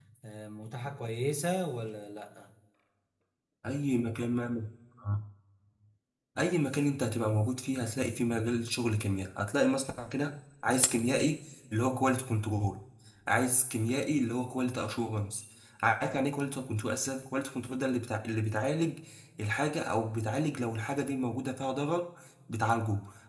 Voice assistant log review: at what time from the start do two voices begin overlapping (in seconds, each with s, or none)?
none